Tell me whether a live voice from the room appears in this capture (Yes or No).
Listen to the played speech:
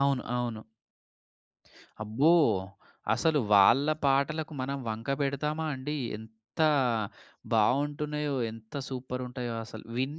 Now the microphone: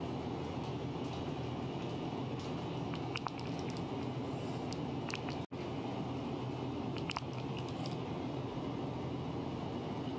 No